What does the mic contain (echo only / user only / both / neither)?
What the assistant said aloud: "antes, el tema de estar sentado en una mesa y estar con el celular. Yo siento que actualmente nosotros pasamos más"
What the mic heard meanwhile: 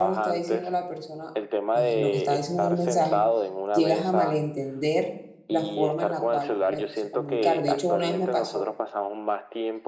both